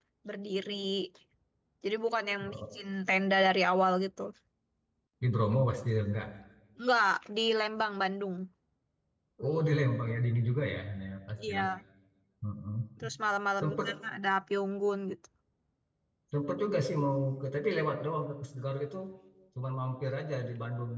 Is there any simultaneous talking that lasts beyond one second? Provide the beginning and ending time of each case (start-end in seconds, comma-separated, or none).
none